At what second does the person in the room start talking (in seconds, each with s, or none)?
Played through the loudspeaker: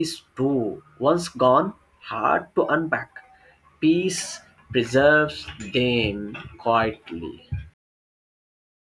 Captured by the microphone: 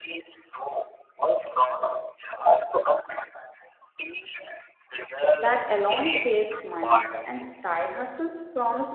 5.3 s